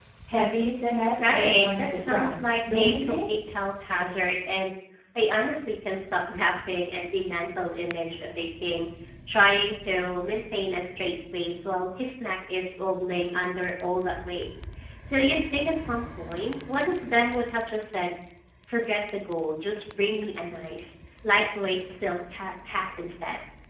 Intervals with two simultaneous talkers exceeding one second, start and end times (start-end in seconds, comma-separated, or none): 1.3-3.2